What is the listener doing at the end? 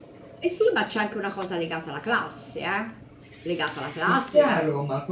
taking over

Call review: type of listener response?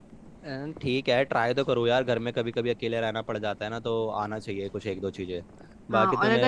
taking over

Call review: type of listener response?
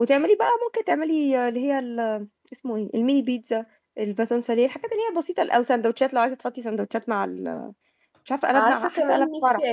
taking over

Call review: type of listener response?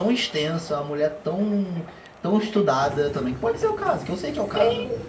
taking over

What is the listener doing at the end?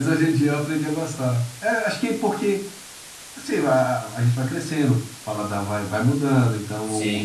listening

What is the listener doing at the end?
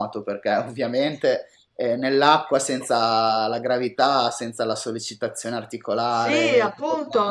taking over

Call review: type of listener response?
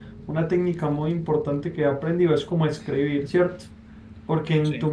listening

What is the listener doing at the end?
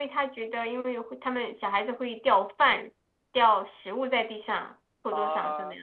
taking over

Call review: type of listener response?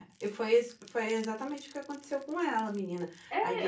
taking over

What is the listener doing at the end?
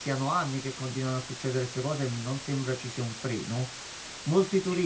listening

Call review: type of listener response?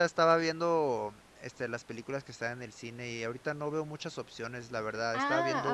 taking over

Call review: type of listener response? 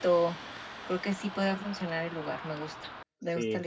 taking over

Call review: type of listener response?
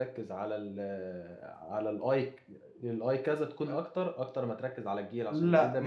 taking over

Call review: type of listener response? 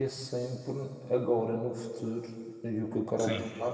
listening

